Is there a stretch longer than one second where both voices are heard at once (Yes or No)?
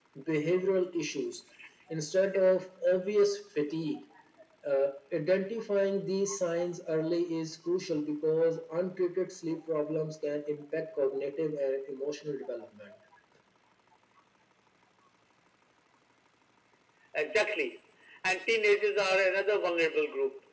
No